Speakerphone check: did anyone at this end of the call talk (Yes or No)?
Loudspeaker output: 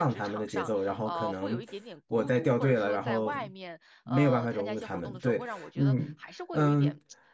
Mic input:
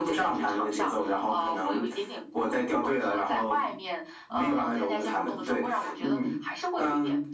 No